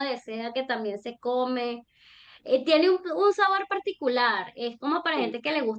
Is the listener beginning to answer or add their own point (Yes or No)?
No